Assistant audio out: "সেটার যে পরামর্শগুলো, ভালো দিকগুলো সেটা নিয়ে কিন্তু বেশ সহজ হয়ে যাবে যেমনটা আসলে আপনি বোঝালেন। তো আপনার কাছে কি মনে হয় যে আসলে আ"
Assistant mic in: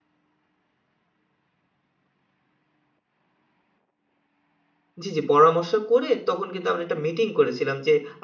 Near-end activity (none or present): present